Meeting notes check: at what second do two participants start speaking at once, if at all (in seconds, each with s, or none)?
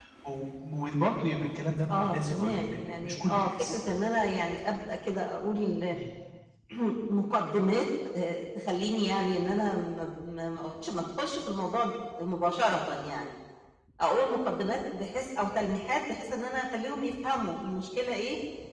1.9 s